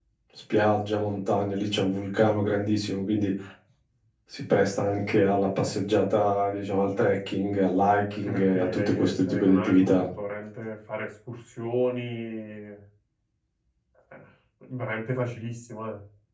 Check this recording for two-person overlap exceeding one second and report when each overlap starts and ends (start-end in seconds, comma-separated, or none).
8.1-9.9